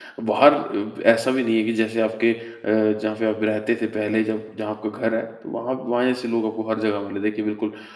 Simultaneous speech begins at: none

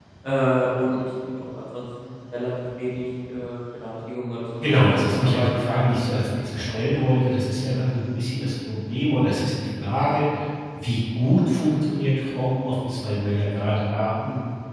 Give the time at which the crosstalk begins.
4.6 s

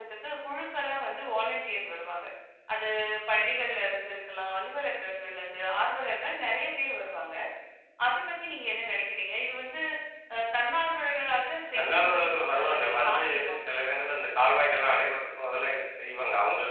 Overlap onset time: 11.8 s

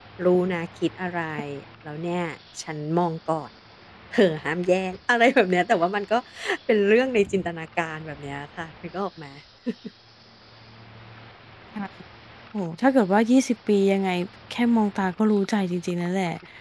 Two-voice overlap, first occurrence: none

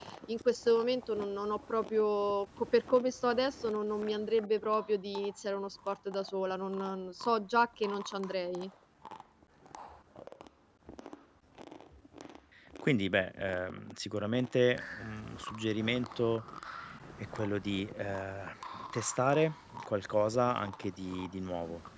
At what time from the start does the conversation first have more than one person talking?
none

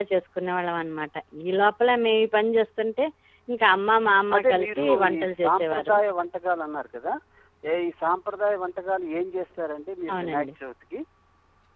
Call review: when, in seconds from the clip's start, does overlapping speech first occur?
4.3 s

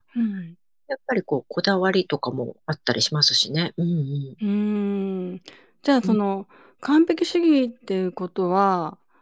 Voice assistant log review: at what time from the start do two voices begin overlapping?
none

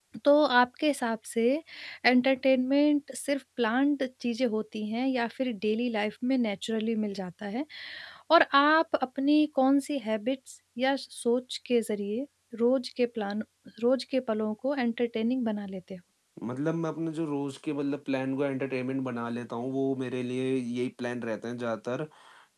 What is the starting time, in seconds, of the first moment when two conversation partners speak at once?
none

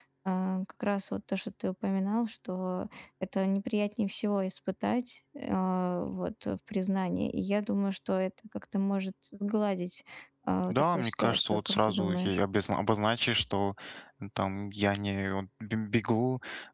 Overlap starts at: 10.7 s

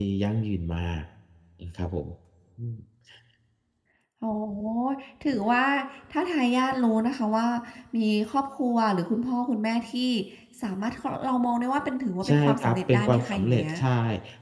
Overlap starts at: 12.2 s

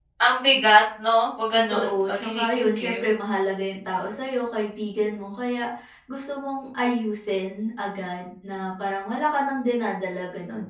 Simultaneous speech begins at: 1.5 s

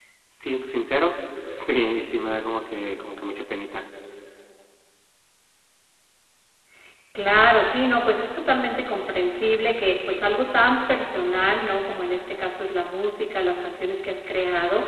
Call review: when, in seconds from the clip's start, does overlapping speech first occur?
none

